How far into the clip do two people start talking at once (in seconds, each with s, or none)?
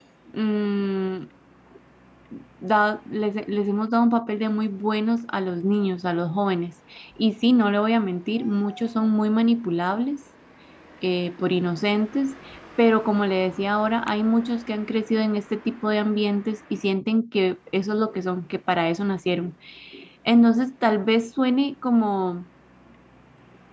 none